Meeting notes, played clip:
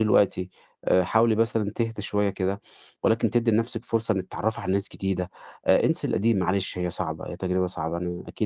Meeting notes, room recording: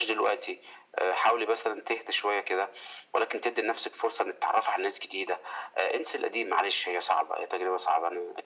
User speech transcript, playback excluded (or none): none